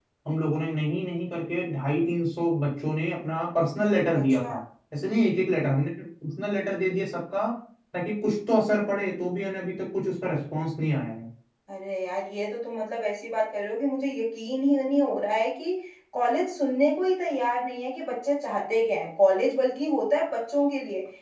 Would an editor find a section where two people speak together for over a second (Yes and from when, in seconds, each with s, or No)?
No